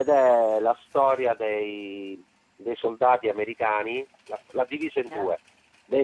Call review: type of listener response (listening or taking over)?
listening